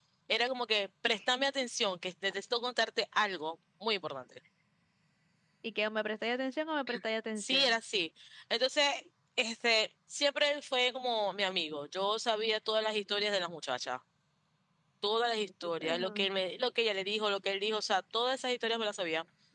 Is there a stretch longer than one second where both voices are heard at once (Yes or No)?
No